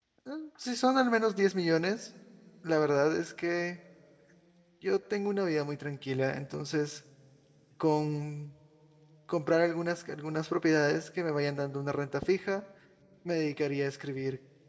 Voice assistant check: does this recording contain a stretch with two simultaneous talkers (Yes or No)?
No